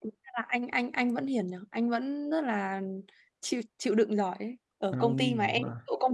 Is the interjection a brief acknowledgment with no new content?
Yes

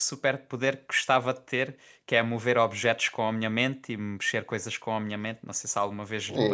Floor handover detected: Yes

